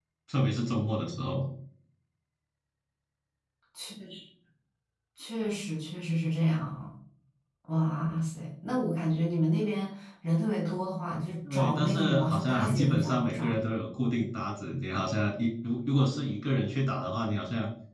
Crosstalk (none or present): present